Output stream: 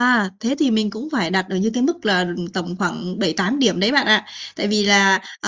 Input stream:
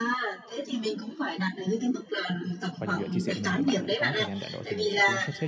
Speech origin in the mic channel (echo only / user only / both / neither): both